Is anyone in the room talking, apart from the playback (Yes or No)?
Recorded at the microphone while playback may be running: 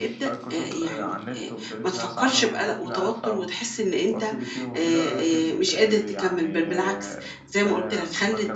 Yes